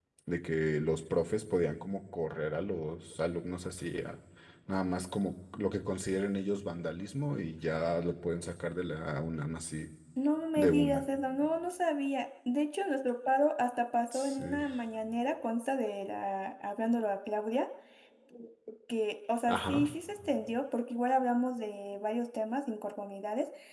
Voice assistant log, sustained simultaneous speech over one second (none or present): none